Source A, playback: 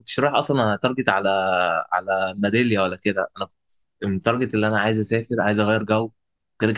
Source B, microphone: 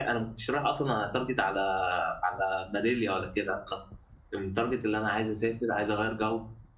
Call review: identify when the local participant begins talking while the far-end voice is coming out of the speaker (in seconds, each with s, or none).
none